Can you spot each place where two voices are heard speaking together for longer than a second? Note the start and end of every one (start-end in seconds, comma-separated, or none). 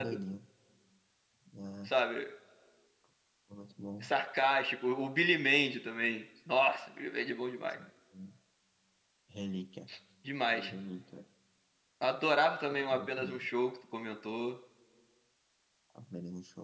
none